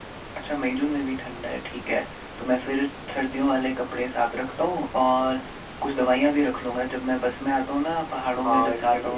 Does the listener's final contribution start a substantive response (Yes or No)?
Yes